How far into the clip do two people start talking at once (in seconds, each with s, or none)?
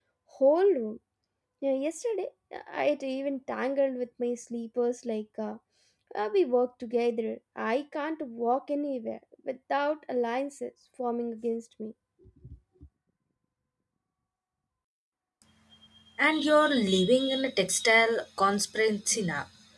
none